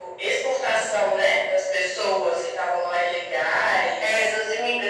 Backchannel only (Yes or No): No